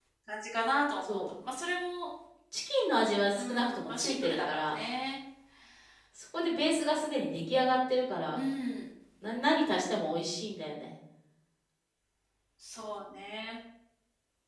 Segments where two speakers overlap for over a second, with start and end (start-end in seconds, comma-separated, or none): 3.3-4.8